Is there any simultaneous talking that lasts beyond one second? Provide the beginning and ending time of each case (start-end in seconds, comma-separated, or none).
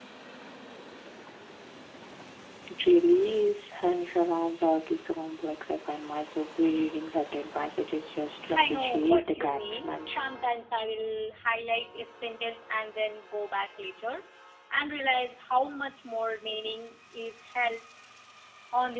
8.5-10.2